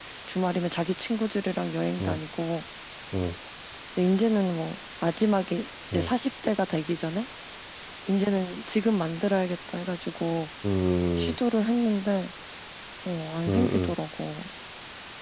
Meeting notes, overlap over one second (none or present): none